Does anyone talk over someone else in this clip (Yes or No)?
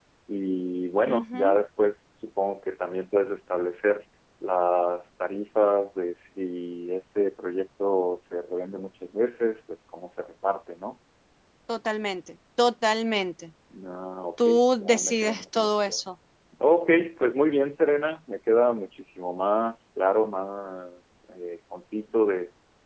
Yes